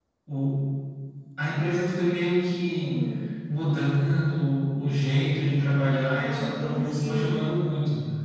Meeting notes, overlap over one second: present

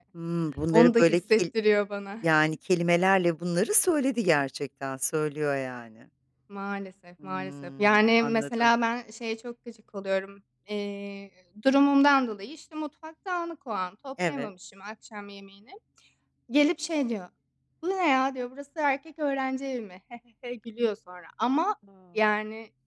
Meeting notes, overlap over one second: present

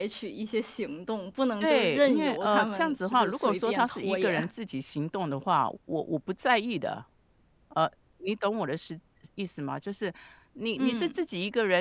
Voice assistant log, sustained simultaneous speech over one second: present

